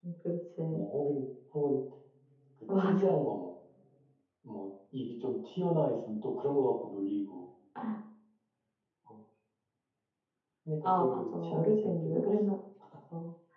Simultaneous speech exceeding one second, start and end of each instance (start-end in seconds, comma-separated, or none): 10.8-12.4